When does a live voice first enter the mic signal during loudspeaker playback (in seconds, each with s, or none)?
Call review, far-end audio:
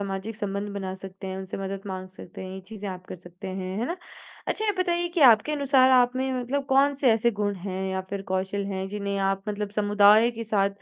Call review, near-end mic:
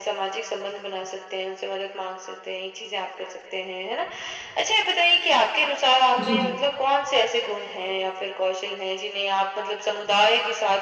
6.2 s